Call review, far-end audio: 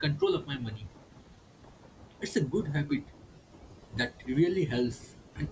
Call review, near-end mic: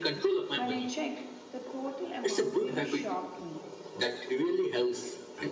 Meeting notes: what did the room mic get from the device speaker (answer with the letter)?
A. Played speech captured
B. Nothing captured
A